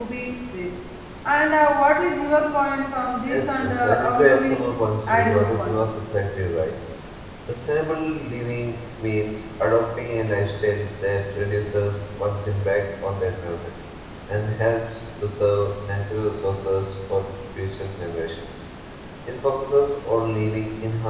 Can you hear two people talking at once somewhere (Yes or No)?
Yes